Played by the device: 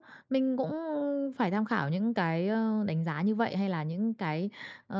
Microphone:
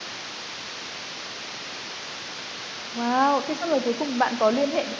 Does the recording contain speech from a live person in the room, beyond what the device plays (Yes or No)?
Yes